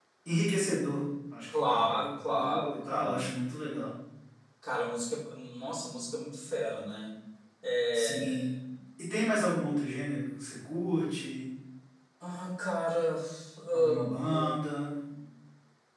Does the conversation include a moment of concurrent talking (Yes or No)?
Yes